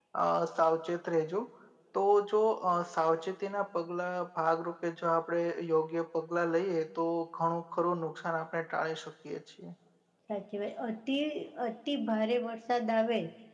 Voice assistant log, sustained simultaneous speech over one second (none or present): none